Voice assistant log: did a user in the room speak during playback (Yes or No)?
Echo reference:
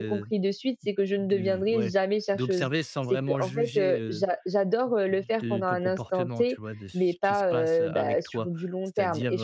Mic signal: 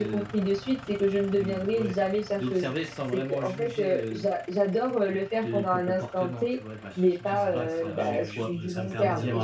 Yes